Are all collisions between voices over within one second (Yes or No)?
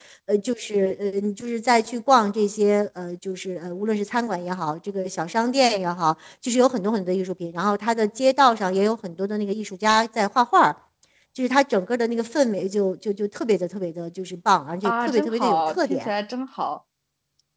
No